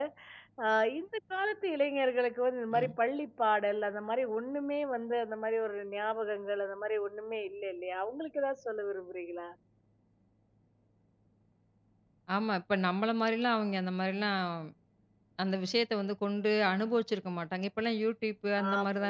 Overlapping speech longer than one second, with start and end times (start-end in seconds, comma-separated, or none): none